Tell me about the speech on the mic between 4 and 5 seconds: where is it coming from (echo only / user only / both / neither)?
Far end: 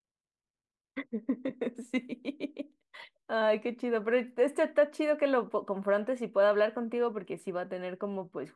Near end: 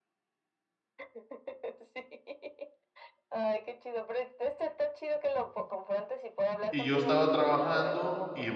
echo only